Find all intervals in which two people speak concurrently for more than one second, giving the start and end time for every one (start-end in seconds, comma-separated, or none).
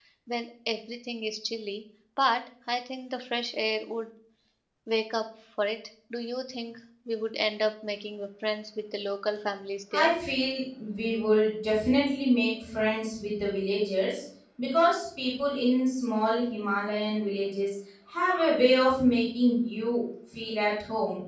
none